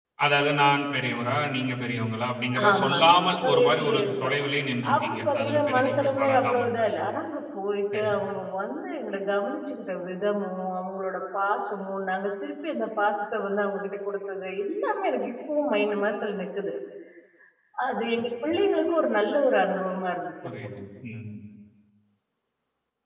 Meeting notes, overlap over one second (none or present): present